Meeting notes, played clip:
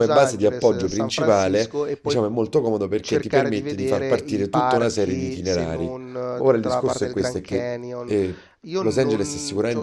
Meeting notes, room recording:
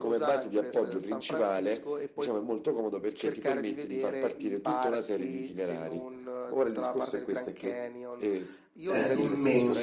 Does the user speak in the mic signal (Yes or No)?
Yes